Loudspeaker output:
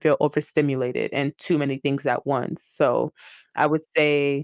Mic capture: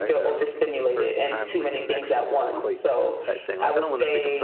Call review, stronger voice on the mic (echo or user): echo